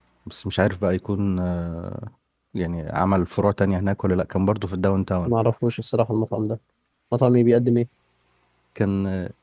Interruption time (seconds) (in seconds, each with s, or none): none